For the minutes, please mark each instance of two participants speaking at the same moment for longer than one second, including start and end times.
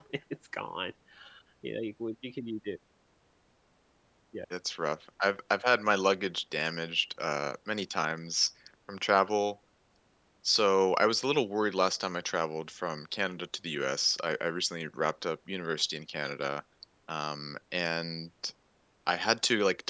none

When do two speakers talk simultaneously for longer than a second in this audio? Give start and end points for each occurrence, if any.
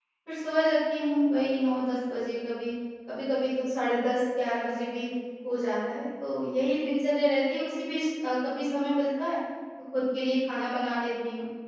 none

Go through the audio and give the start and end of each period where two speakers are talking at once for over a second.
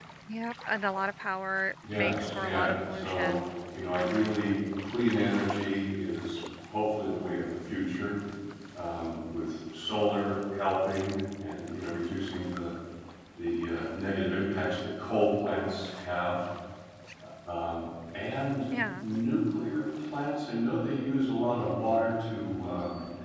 1.9-3.3

